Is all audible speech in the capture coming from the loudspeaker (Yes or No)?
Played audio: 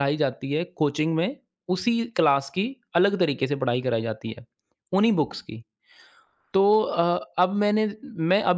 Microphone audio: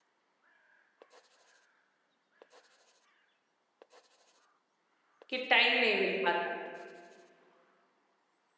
No